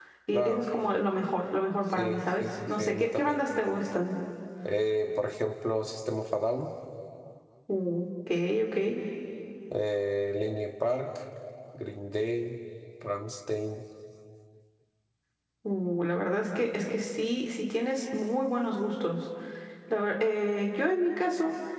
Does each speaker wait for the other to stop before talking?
No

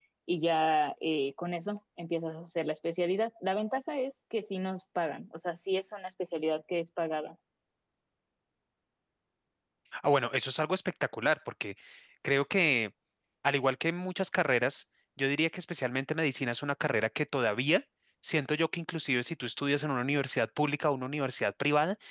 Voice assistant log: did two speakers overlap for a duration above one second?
No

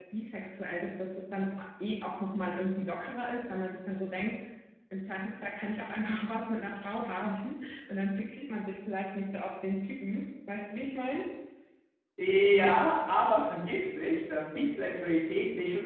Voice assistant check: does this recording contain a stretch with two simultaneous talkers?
No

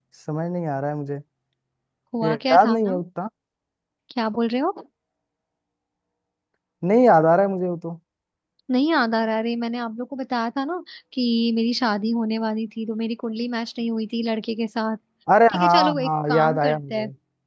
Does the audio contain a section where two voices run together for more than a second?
Yes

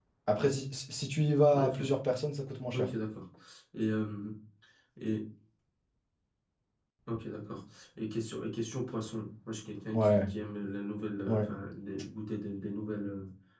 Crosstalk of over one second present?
No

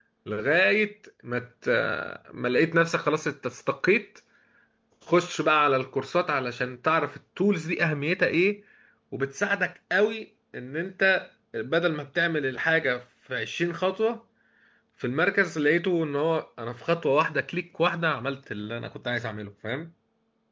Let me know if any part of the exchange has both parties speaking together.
No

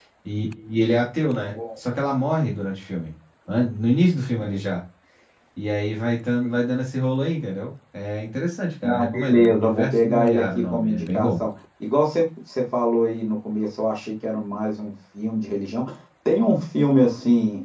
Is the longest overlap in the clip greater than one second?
Yes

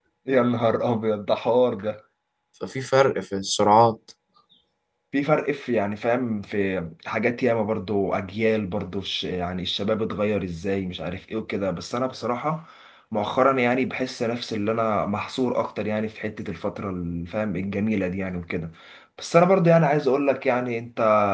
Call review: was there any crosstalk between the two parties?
No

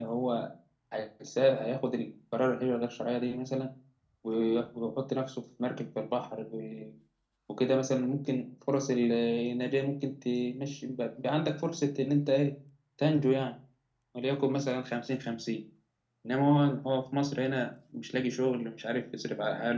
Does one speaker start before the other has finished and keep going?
No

